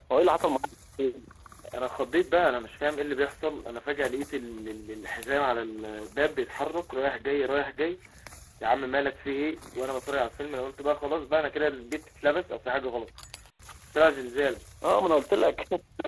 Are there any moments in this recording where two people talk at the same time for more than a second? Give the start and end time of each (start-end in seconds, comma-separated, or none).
none